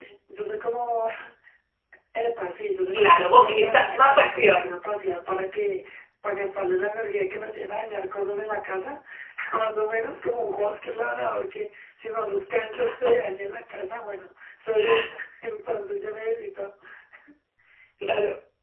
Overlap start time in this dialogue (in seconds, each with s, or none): 2.9 s